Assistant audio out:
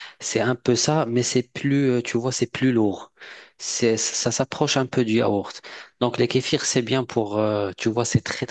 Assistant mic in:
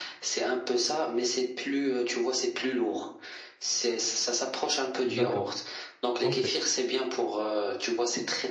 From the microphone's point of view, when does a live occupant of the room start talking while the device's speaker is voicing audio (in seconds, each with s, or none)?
5.0 s